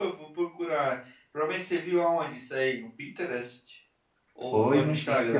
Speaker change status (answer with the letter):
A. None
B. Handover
B